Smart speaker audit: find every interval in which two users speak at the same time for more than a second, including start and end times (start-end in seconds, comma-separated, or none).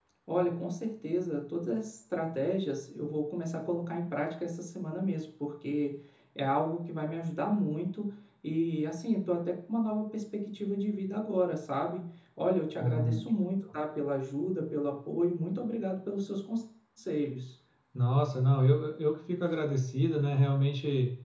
none